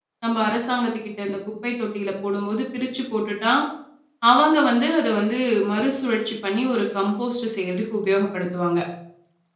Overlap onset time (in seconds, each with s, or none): none